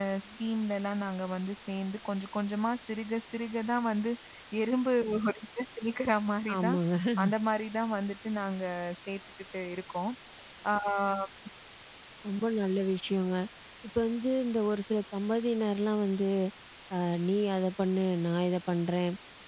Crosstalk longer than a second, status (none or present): none